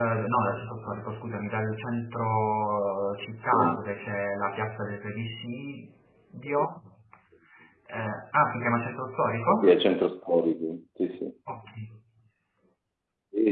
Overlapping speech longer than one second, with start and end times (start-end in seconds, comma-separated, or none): none